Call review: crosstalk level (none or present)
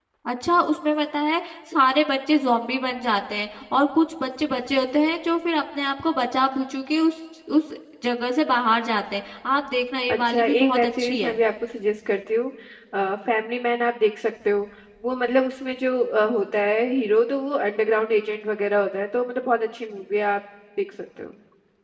present